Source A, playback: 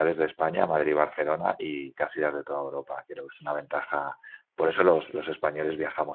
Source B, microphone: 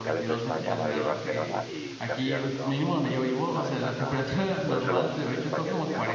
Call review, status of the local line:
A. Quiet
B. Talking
B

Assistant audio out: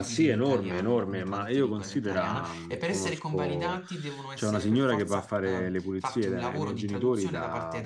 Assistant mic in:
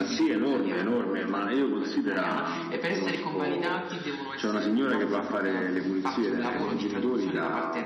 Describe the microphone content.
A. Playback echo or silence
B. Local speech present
A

